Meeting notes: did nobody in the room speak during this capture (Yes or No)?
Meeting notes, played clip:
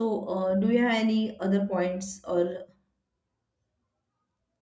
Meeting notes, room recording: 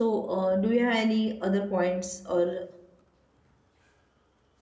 Yes